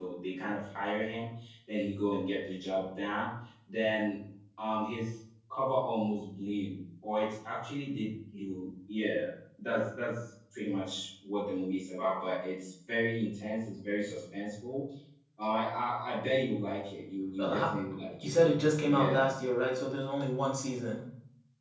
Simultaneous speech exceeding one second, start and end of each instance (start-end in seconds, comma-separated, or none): none